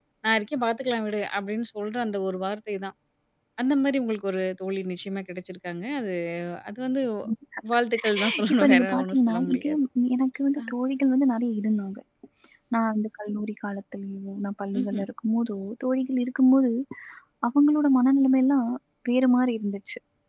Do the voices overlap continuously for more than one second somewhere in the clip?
Yes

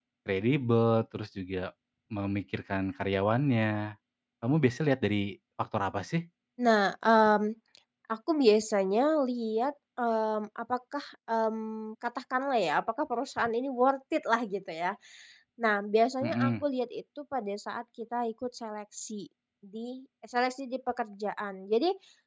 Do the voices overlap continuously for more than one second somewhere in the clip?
No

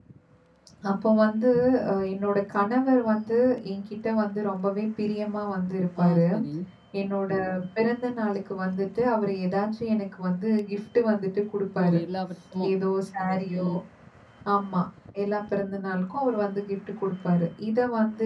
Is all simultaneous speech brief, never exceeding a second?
Yes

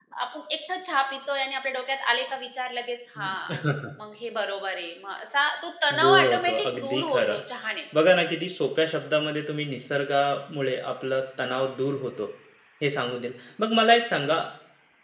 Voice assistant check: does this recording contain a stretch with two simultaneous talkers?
Yes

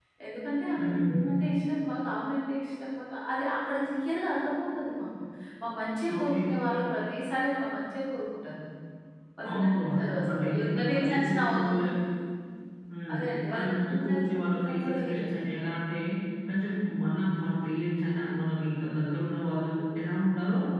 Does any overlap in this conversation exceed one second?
Yes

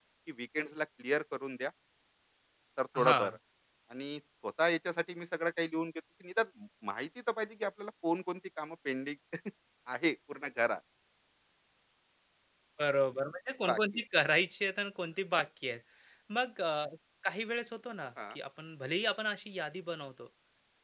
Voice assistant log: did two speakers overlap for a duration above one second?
No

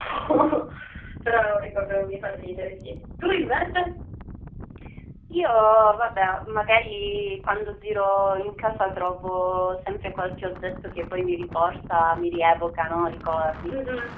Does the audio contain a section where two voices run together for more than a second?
No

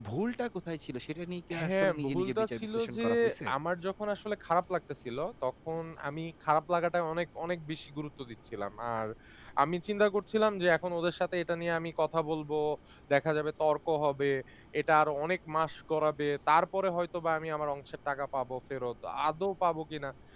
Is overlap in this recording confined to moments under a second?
No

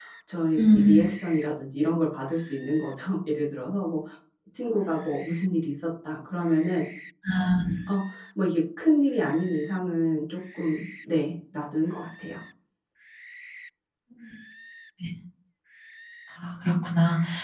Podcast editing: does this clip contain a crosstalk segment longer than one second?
No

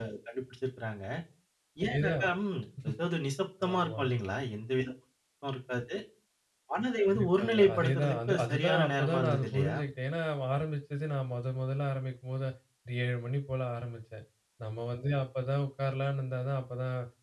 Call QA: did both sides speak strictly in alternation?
No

